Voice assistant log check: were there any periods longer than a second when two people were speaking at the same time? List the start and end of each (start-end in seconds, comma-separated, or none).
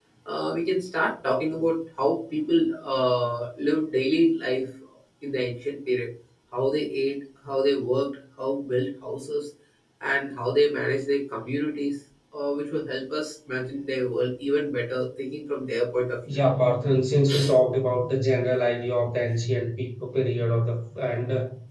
none